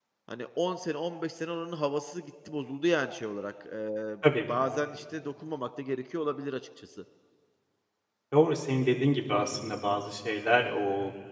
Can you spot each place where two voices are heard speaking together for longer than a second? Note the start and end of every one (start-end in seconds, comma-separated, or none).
none